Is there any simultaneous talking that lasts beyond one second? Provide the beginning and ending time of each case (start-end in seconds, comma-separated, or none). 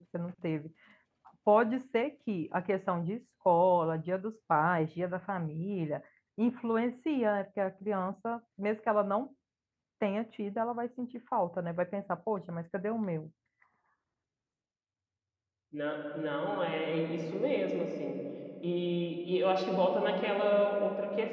none